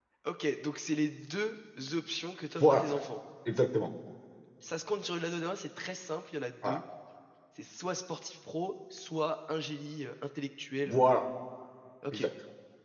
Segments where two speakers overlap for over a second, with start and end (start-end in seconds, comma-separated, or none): none